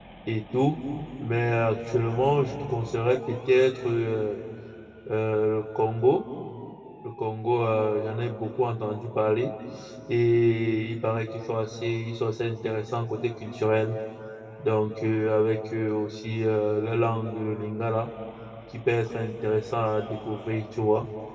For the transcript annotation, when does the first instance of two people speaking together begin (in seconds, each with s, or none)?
none